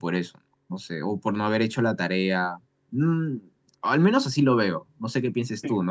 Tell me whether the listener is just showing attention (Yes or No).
Yes